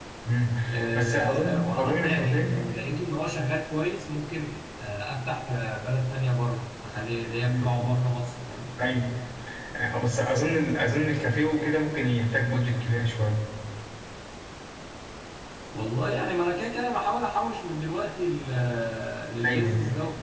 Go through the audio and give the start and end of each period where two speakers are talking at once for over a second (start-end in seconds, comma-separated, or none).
0.9-2.5